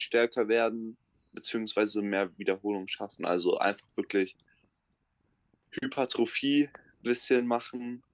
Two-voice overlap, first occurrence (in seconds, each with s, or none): none